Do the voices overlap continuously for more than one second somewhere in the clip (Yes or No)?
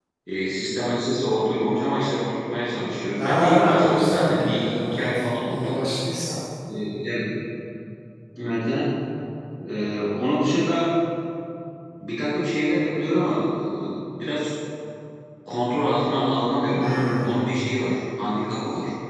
Yes